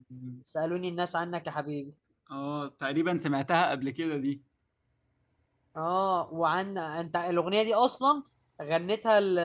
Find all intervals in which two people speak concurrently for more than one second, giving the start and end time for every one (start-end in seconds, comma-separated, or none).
none